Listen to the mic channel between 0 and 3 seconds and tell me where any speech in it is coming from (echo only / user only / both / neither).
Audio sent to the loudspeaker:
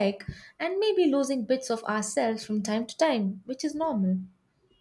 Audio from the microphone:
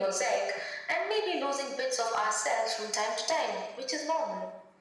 echo only